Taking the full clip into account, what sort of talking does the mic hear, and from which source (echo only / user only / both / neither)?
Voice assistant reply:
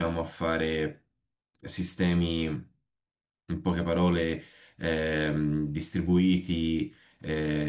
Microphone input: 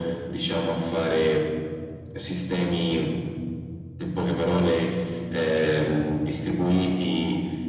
echo only